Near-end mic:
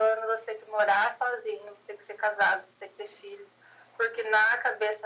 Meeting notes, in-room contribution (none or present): none